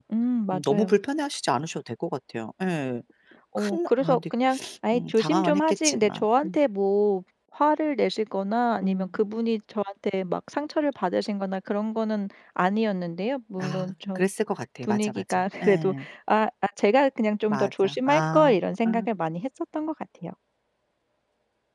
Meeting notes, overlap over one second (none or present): present